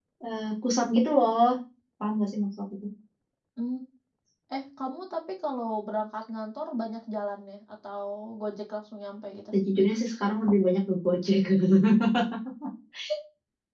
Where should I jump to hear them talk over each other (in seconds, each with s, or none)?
none